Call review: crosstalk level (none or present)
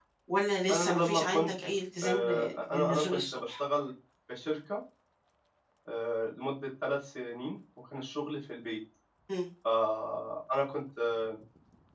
present